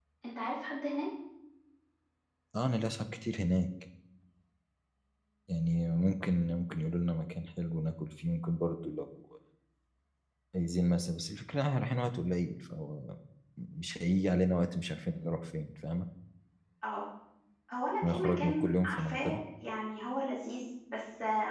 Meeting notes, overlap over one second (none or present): present